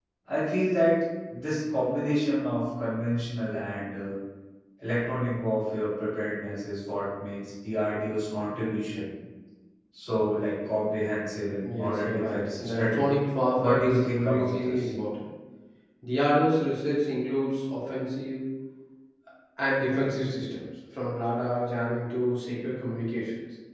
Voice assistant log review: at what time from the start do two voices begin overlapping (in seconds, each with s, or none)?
11.6 s